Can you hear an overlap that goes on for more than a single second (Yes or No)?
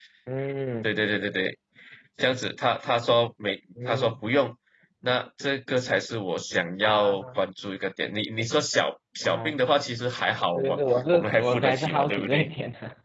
Yes